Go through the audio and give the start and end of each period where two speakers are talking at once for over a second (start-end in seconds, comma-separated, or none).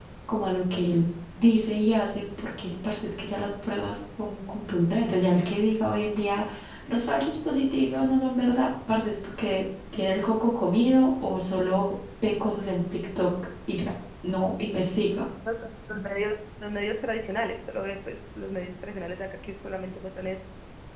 none